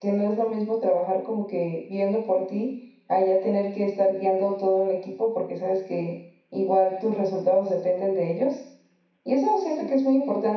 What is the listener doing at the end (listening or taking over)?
listening